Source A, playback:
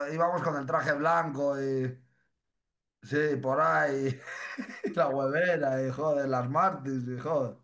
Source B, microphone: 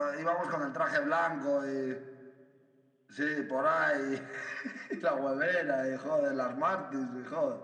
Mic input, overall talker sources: echo only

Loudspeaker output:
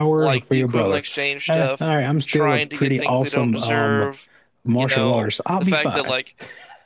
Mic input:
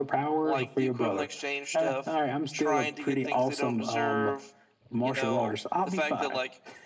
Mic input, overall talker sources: echo only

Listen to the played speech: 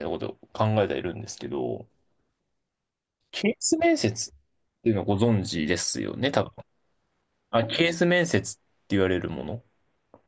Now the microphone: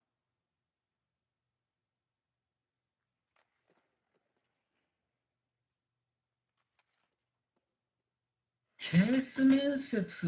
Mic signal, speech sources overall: user only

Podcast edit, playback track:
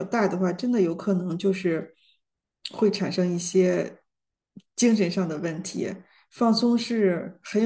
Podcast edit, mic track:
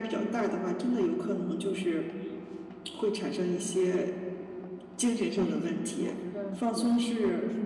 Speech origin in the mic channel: both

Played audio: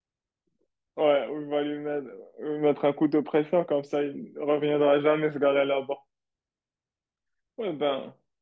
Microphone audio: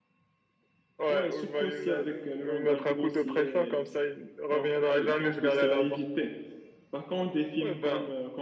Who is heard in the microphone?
both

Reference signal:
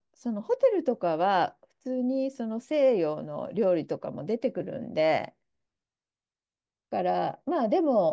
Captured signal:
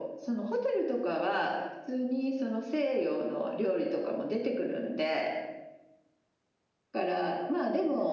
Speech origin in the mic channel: echo only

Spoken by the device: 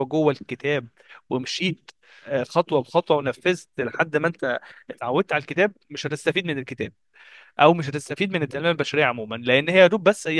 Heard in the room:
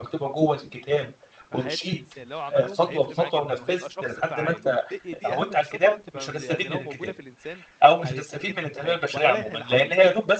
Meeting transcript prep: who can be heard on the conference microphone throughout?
both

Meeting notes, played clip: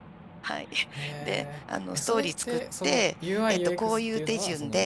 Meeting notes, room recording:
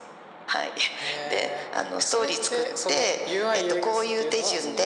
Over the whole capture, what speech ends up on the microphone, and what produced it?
echo only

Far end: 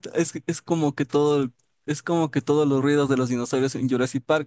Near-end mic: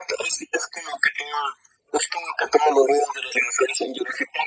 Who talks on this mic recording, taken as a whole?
echo only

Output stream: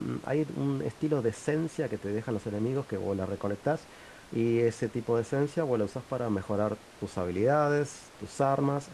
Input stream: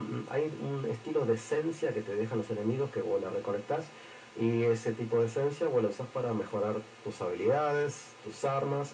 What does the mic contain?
echo only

